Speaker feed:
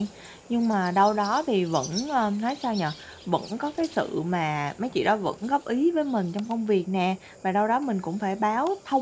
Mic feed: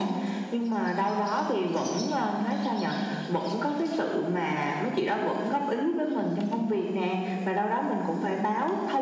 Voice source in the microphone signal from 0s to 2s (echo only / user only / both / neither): echo only